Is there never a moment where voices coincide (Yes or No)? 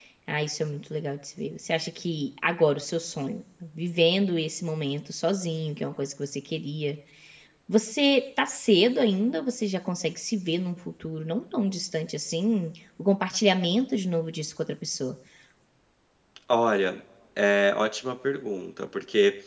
Yes